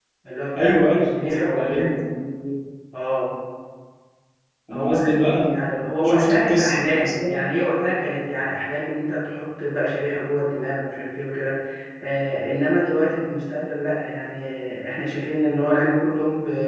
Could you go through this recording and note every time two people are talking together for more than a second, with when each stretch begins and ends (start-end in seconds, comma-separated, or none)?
0.6-1.9, 5.5-7.4